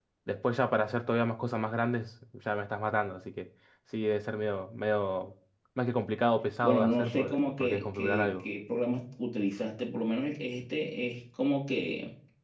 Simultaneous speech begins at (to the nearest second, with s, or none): 7 s